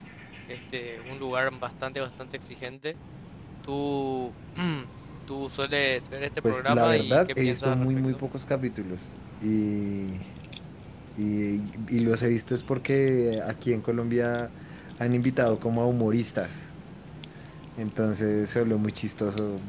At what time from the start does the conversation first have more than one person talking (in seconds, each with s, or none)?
6.4 s